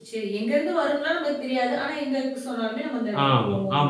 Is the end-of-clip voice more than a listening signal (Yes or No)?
Yes